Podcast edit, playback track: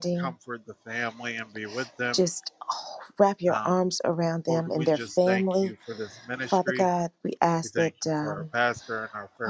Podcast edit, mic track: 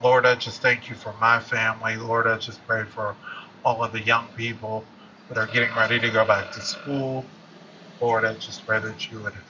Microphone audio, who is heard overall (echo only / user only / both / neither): user only